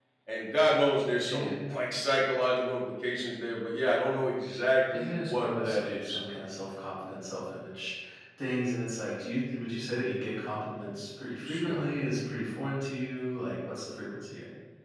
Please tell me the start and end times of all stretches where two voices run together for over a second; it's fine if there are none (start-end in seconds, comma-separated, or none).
4.9-6.2